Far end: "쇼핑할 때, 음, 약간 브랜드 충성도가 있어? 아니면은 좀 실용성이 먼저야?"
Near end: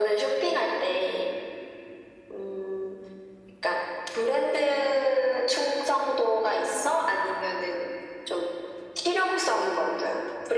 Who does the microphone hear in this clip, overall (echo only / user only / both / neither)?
echo only